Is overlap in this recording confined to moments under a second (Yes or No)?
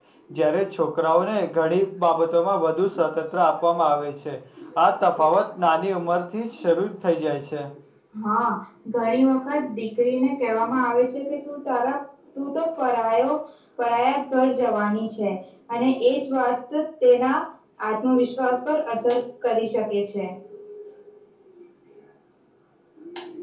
Yes